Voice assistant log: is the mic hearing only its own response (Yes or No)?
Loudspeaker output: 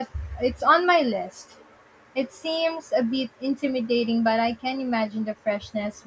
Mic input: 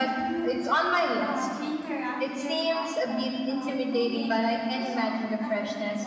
No